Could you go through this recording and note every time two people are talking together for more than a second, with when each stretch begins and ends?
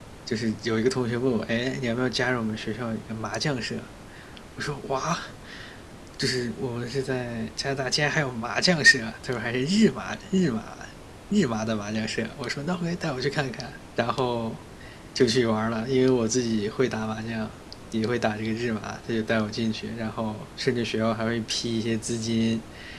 none

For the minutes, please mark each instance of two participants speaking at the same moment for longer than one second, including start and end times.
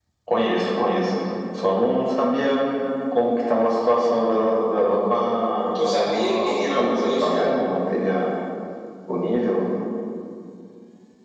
5.8-7.5

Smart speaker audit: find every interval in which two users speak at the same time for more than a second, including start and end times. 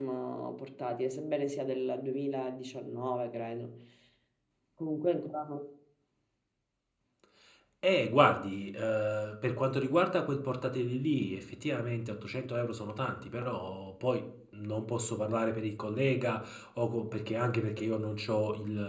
none

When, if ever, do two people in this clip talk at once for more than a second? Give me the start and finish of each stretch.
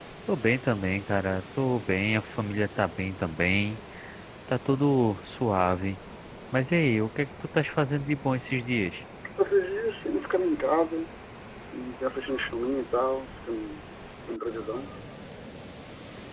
none

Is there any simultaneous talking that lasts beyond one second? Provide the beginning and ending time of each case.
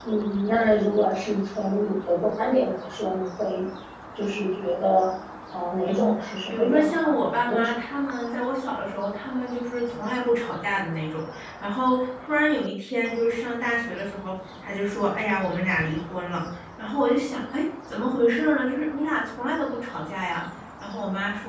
5.8-7.8

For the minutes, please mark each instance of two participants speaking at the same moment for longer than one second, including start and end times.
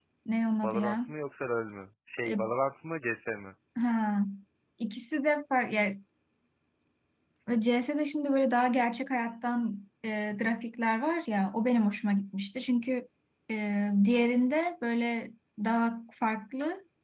none

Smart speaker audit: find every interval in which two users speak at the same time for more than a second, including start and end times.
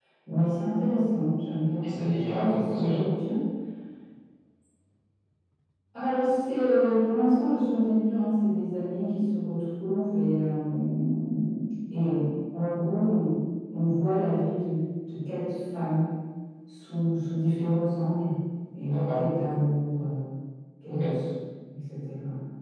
1.8-3.1

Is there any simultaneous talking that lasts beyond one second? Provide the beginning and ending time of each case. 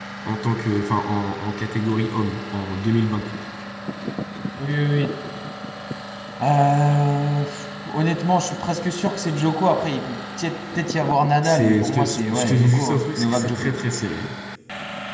11.4-13.7

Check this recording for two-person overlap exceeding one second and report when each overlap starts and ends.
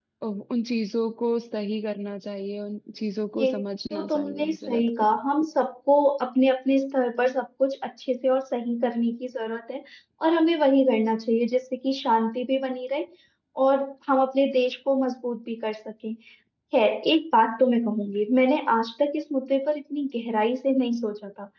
3.9-5.2

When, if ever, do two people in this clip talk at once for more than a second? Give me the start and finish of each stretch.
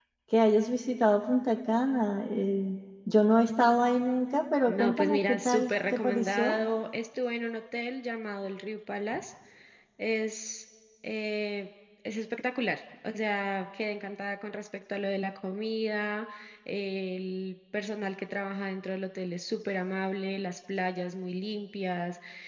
4.7-6.6

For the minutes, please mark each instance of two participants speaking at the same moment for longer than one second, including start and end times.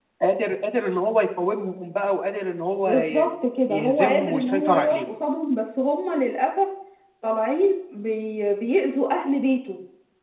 3.7-5.0

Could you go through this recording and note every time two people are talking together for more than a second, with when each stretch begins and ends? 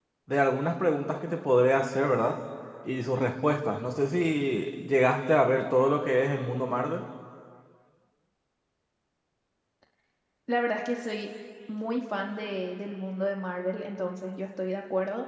none

